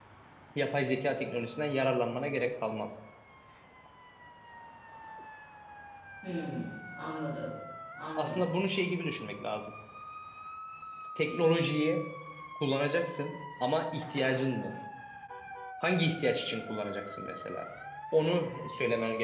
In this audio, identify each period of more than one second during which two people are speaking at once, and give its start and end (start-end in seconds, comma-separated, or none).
none